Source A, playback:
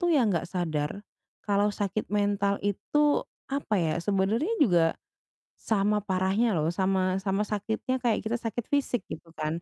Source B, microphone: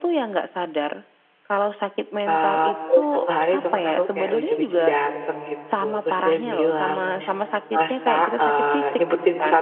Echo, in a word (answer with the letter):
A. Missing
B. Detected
B